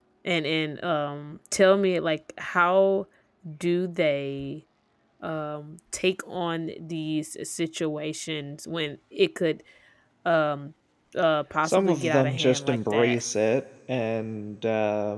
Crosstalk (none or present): present